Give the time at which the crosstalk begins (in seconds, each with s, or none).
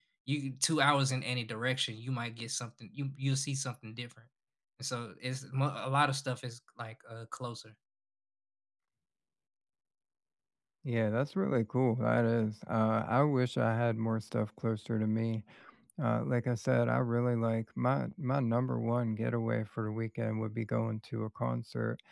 none